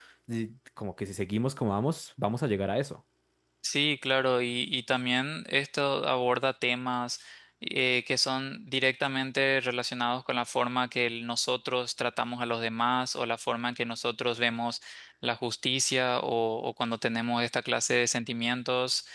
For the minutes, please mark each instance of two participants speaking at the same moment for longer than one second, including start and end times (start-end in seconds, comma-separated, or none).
none